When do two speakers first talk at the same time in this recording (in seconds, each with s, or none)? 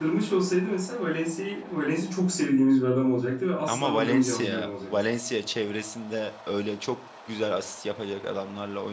3.7 s